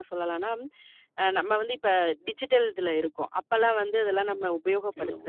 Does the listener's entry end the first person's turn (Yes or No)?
No